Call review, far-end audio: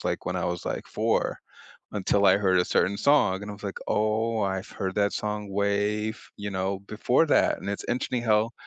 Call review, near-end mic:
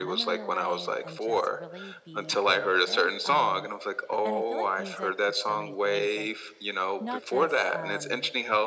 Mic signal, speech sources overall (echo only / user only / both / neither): both